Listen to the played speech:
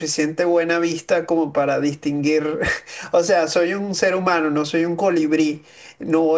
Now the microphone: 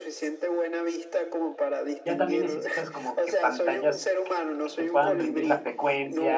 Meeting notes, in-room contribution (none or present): present